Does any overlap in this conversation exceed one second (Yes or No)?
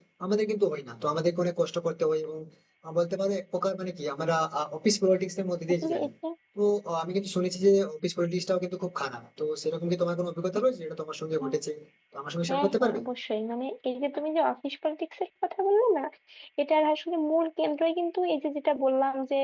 No